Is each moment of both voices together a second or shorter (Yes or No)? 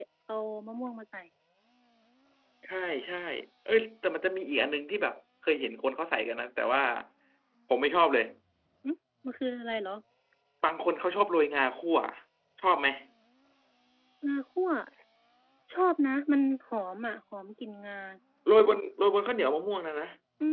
Yes